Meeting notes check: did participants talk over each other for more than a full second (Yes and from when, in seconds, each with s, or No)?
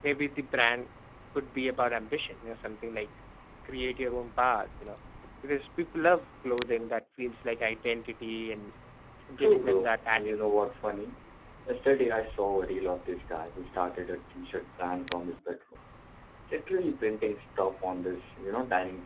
Yes, from 9.4 s